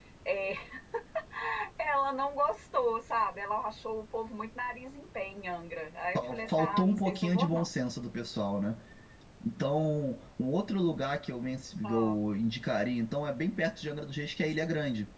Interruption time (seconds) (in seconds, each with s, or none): 6.2 s